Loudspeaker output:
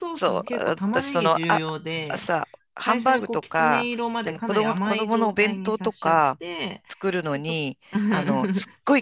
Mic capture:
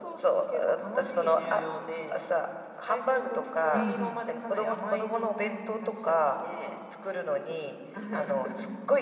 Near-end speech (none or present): present